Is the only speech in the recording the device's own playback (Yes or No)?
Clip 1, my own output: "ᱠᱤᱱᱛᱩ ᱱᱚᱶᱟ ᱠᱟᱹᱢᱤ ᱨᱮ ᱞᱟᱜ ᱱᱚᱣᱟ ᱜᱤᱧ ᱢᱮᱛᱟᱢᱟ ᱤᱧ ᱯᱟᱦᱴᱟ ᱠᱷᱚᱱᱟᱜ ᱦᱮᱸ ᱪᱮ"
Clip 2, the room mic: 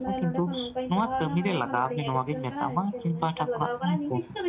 No